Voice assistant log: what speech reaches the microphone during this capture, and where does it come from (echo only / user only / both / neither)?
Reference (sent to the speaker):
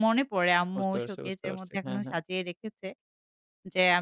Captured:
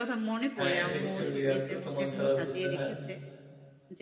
both